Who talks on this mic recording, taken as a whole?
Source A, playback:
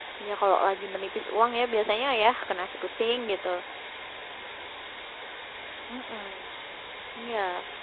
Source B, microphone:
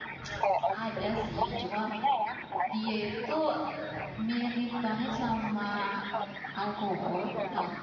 both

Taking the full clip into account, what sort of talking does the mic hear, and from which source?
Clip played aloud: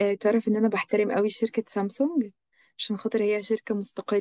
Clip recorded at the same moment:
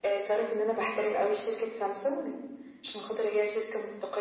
echo only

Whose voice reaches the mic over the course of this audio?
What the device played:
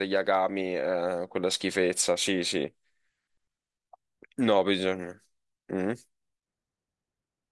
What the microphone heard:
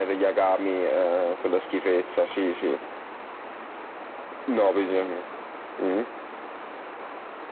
echo only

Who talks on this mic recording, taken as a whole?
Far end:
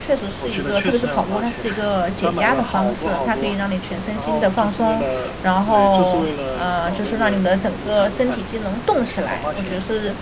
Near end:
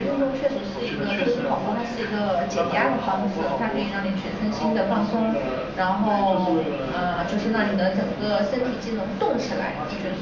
echo only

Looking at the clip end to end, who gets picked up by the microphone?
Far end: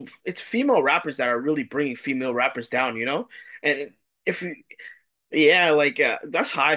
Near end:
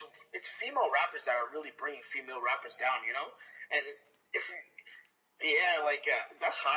echo only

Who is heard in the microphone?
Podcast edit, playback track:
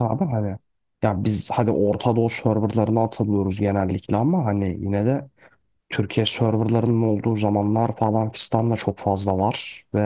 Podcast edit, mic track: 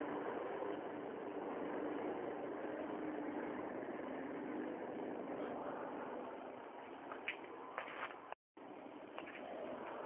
neither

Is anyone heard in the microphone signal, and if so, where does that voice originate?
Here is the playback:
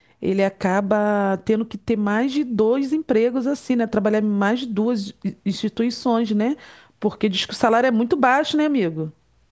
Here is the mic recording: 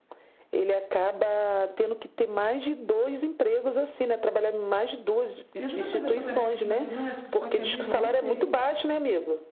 both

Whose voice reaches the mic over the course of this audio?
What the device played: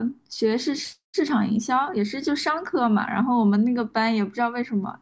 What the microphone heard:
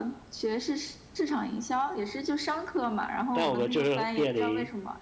both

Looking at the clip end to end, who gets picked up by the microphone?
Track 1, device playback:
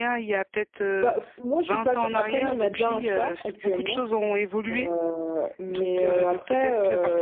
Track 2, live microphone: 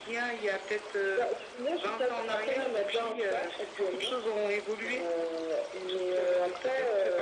echo only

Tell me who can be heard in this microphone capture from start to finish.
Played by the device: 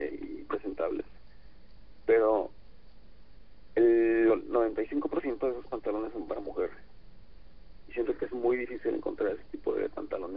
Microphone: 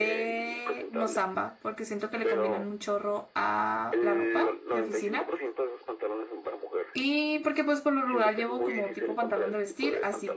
both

